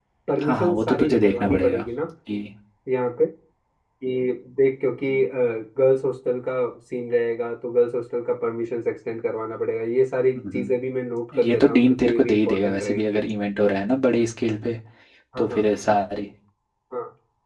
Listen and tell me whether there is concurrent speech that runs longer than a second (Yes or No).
Yes